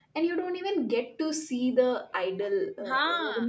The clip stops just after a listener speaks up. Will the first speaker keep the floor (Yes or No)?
Yes